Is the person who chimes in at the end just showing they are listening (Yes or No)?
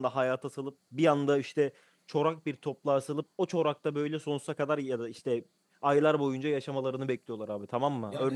No